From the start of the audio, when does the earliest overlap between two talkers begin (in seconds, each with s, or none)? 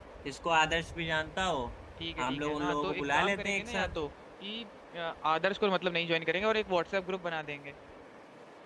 2.2 s